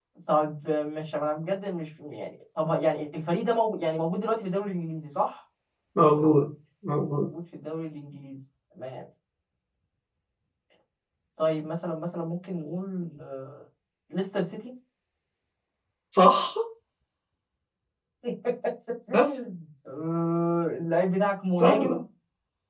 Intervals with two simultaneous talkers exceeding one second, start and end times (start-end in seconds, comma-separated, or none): none